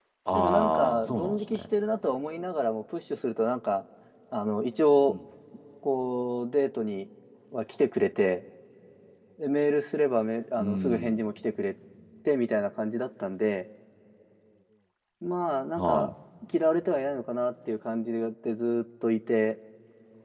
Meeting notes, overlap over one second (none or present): present